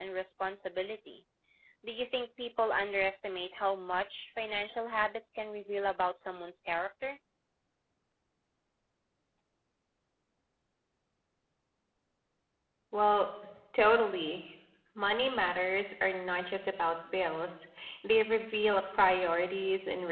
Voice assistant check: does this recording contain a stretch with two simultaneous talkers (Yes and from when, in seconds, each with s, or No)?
No